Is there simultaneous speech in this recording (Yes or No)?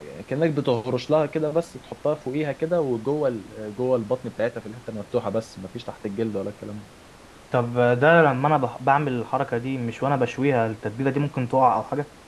No